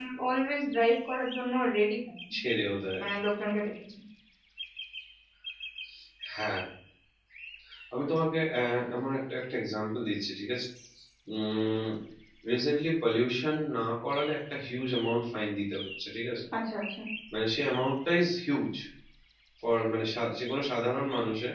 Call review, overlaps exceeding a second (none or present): none